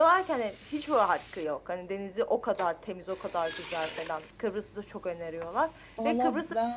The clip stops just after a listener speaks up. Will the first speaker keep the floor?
No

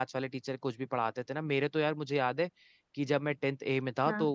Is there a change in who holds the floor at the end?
No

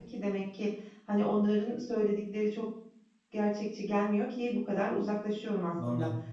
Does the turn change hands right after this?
No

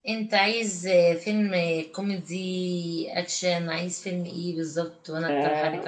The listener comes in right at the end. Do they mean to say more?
Yes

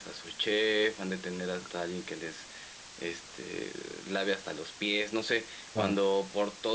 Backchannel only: Yes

